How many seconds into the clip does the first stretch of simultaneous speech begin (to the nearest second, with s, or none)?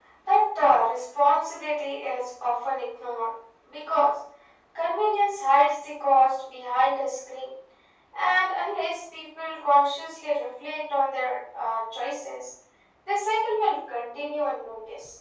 none